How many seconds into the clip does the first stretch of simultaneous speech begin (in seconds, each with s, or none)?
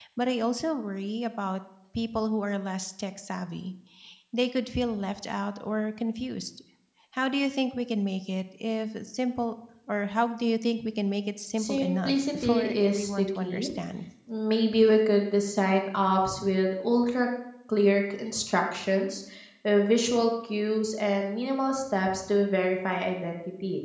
11.6 s